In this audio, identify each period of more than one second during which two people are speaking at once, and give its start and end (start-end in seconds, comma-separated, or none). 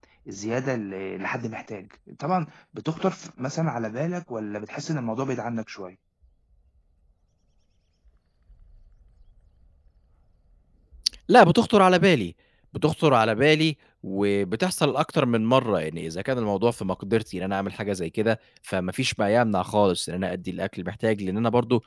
none